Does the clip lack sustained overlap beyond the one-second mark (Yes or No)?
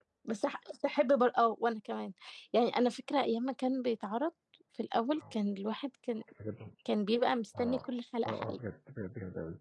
Yes